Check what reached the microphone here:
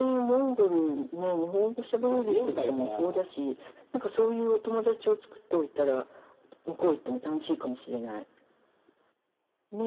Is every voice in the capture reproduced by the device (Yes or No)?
No